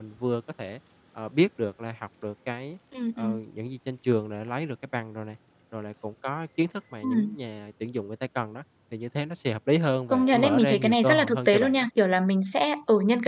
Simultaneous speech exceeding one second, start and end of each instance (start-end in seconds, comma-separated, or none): 10.1-11.9